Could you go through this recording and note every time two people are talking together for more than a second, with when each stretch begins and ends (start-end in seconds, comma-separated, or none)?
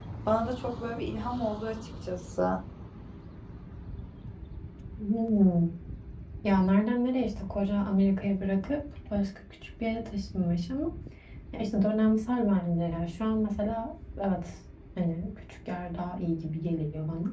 none